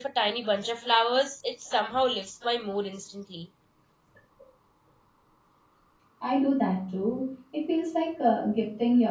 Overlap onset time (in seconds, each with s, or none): none